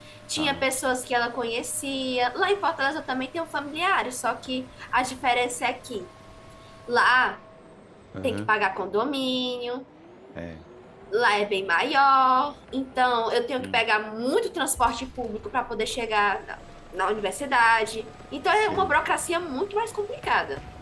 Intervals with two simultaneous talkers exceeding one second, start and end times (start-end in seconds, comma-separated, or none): none